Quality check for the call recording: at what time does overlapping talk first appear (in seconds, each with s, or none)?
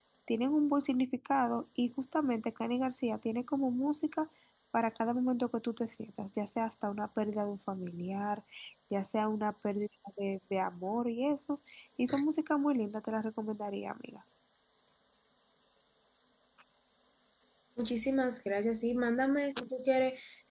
none